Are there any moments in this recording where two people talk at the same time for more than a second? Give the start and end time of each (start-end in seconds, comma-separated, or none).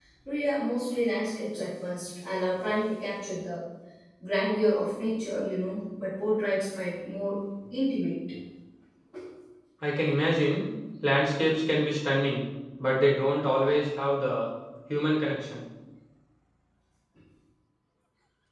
none